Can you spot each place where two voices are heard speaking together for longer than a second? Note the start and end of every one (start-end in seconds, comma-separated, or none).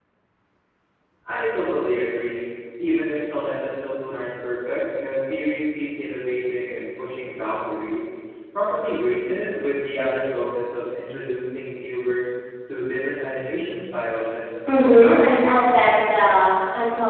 14.7-16.0